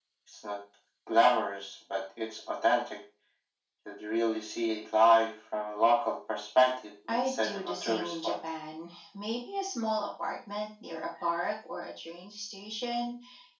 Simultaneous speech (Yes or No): Yes